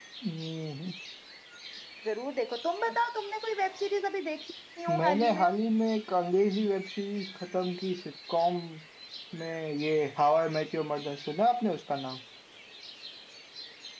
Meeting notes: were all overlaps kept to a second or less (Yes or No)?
Yes